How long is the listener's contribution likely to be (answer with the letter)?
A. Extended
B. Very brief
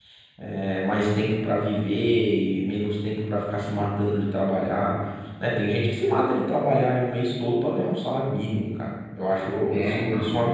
B